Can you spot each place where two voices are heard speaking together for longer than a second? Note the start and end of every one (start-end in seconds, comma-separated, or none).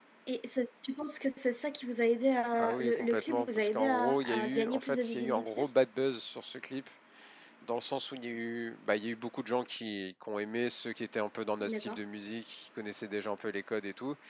2.6-5.6